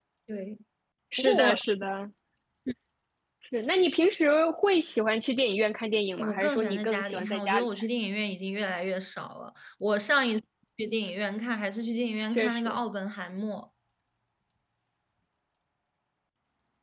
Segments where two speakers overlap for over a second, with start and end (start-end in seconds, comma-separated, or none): 6.2-7.7